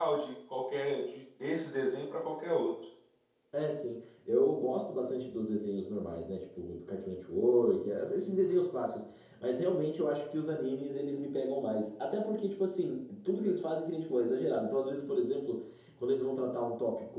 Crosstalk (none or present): none